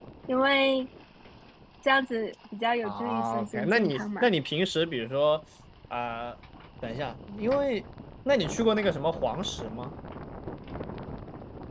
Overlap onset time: 2.8 s

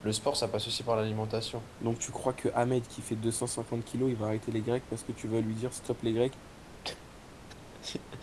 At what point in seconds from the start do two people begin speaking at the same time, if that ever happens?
none

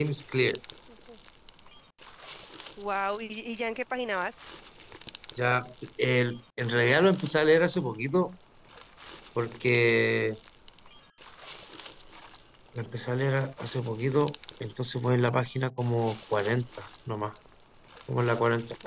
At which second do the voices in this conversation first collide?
none

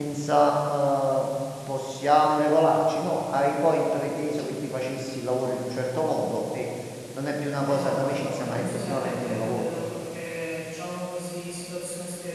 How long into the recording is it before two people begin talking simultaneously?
7.6 s

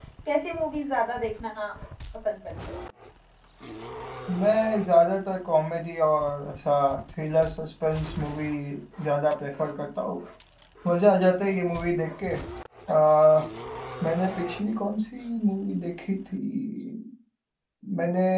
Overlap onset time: none

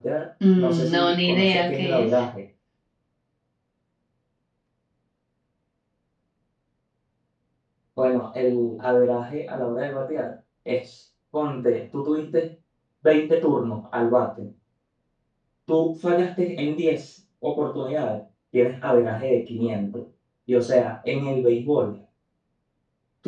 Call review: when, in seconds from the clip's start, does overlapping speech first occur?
0.6 s

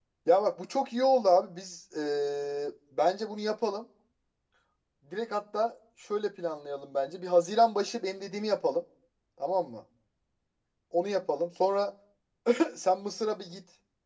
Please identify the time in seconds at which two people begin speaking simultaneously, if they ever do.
none

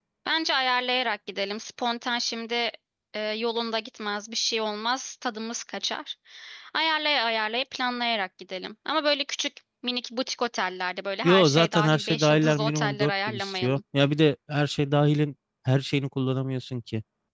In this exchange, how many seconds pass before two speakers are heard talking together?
11.2 s

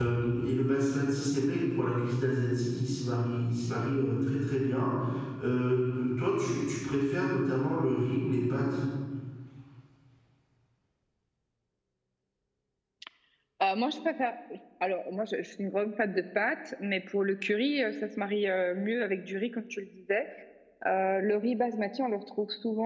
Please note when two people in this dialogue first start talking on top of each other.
none

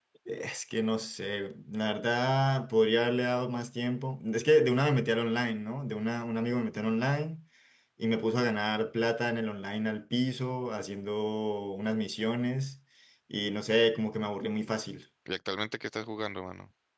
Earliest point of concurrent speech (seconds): none

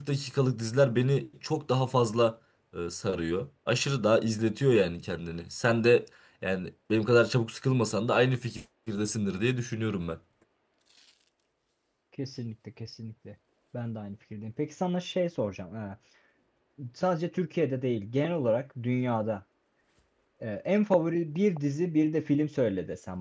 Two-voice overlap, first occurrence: none

